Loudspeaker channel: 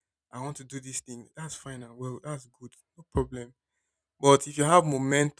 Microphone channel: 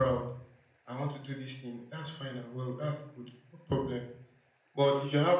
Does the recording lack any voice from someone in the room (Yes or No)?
Yes